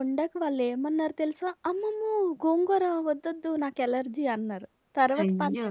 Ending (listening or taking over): listening